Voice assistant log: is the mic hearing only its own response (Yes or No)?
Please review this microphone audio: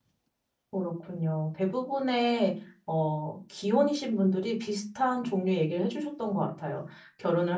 No